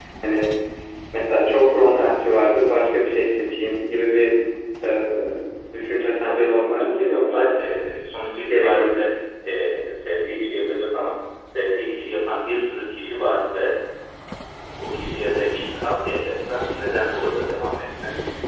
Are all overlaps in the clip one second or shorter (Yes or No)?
No